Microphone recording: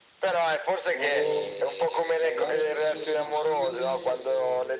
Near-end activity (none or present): present